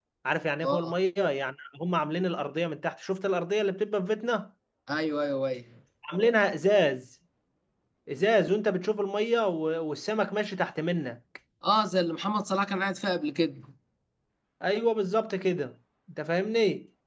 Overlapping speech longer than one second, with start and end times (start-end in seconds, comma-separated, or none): none